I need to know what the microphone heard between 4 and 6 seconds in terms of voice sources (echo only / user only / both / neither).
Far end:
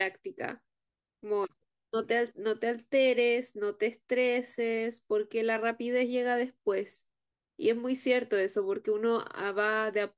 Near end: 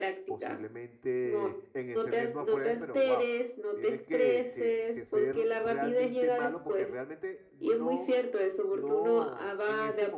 both